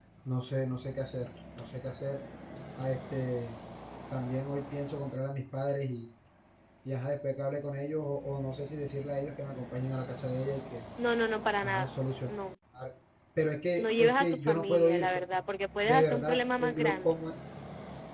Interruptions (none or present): present